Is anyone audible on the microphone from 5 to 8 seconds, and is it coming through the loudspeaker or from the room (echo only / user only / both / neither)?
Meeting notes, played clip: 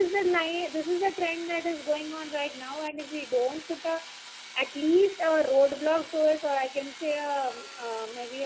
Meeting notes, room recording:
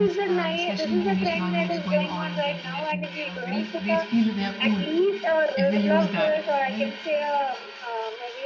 both